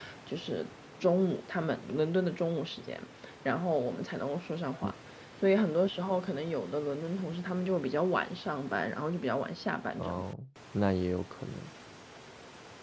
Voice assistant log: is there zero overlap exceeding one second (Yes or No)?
Yes